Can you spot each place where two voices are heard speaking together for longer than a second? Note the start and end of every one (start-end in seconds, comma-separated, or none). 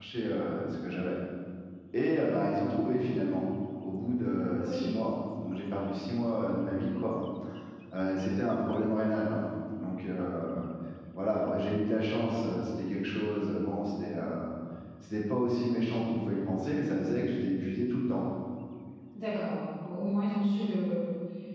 none